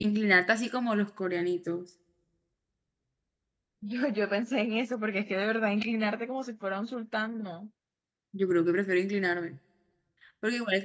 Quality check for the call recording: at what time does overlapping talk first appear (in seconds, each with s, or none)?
none